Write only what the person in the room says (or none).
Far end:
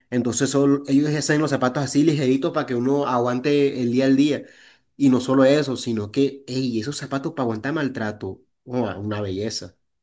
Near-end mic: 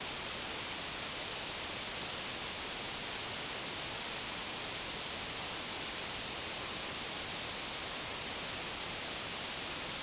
none